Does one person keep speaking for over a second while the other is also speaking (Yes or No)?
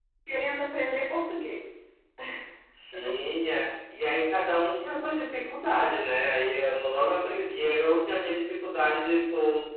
No